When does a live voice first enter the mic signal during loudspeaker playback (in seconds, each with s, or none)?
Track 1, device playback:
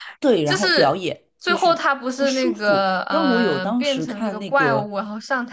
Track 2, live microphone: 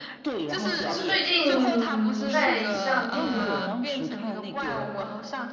0.5 s